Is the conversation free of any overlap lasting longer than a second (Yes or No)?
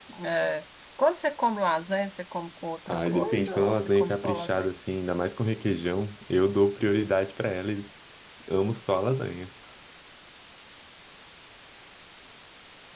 No